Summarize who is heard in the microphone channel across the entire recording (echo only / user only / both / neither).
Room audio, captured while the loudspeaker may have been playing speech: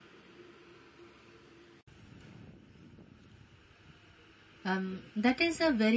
user only